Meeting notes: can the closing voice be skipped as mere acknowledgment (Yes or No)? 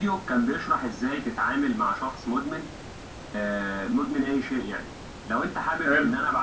Yes